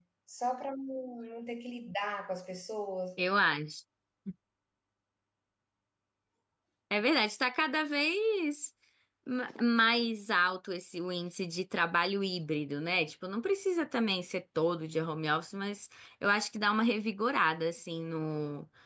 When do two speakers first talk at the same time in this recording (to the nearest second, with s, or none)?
none